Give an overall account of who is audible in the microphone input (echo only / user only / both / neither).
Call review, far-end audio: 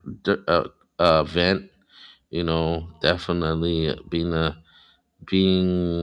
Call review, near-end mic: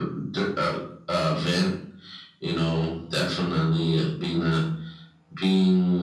echo only